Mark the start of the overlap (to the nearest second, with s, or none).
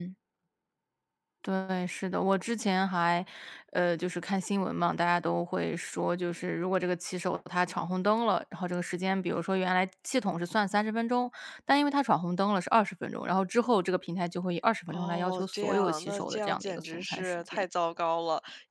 15 s